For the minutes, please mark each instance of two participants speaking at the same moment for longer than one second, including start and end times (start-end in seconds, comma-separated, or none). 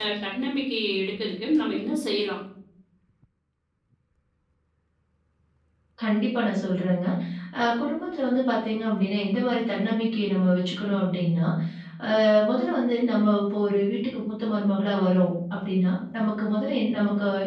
none